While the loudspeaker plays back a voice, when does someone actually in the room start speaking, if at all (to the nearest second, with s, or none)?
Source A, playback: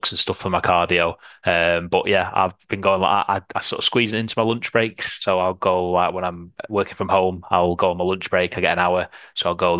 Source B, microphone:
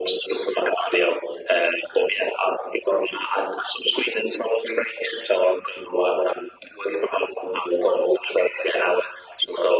none